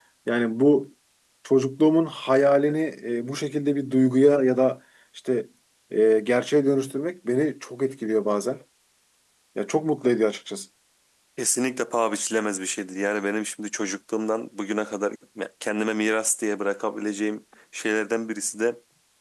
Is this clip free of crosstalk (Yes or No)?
Yes